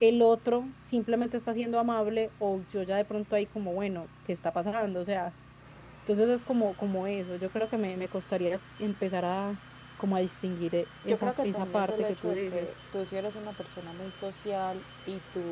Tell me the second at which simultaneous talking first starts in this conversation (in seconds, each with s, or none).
11.1 s